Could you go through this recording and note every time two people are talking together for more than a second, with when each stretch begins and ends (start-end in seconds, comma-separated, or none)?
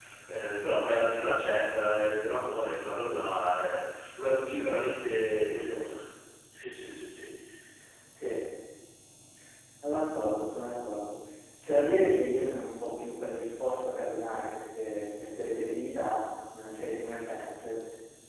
none